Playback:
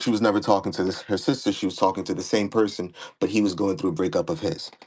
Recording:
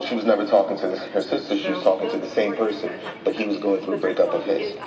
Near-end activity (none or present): present